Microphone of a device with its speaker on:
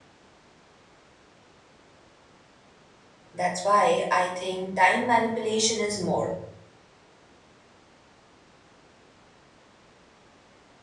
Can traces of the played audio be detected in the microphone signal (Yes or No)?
No